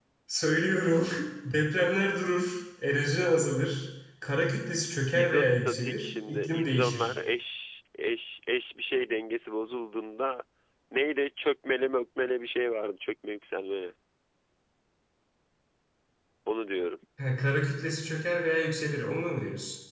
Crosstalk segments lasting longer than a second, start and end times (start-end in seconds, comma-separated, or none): 5.1-7.2